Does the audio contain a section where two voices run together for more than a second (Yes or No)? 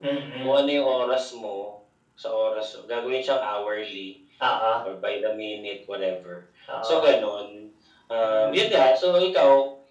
No